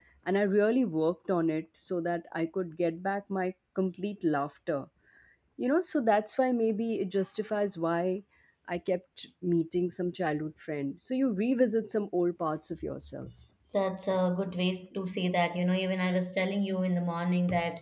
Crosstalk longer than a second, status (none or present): none